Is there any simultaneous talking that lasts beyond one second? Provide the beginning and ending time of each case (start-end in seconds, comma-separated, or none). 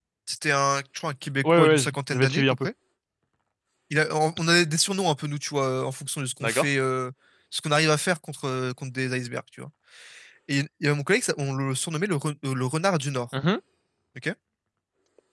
1.4-2.7